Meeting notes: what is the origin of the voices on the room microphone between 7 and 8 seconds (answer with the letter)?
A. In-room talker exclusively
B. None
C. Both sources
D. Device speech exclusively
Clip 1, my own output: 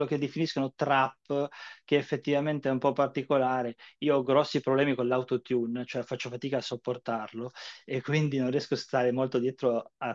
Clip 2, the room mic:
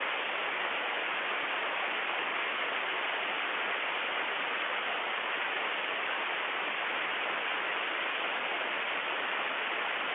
B